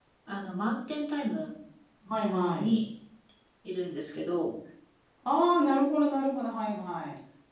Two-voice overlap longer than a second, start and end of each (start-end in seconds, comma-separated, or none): none